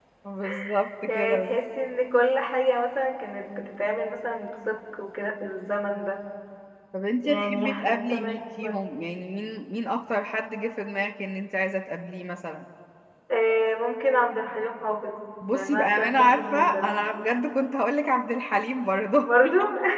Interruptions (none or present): present